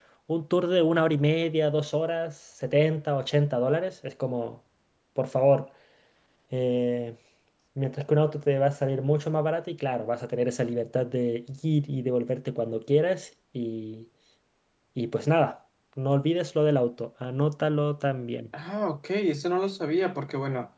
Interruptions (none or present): none